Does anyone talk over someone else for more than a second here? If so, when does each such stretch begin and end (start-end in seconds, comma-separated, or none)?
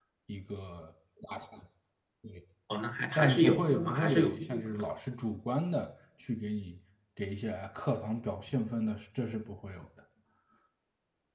3.2-4.8